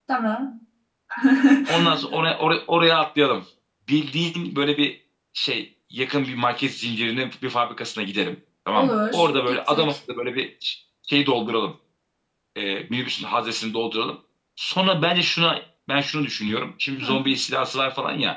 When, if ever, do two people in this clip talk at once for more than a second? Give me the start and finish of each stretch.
8.7-9.9

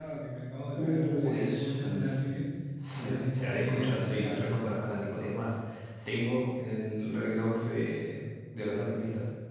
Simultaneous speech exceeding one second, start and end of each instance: 0.7-2.2, 2.9-4.4

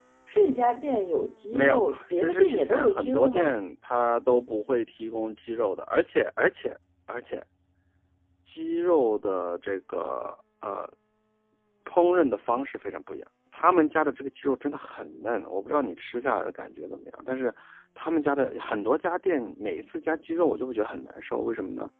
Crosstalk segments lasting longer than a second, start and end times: 1.5-3.5

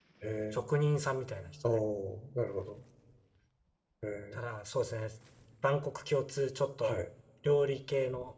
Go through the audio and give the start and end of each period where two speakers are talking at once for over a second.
none

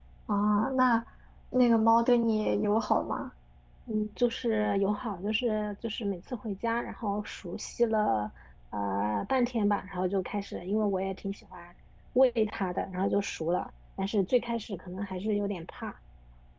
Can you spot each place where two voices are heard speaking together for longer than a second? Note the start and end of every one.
none

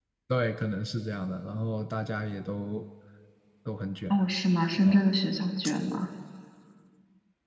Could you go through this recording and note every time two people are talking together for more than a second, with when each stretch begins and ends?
none

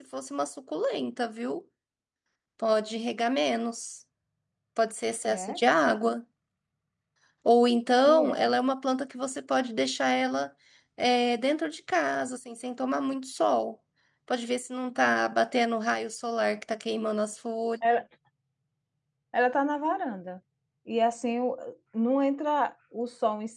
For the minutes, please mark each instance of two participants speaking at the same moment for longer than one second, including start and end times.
none

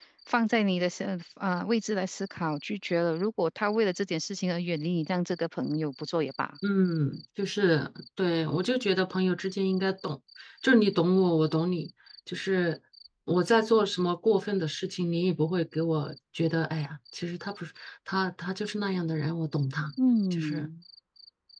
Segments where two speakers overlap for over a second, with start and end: none

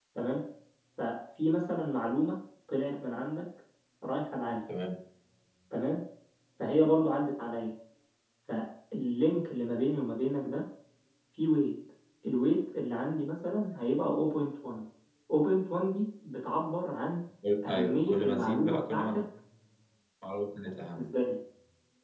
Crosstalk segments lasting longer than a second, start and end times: 17.7-19.2

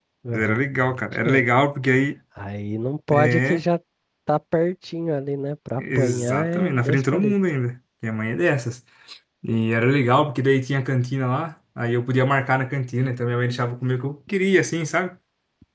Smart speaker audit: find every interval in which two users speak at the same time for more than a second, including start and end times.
5.8-7.3

